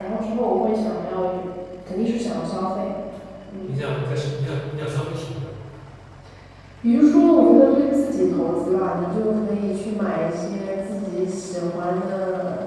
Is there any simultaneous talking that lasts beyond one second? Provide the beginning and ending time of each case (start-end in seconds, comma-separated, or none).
none